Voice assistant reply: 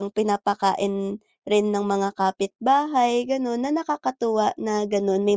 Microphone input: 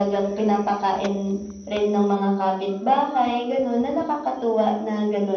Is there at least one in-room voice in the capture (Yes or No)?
No